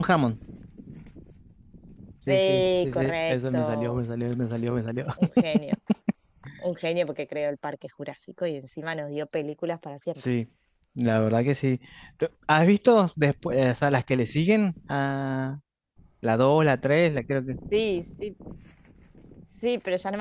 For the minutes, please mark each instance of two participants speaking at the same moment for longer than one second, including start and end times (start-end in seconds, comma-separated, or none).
2.3-4.0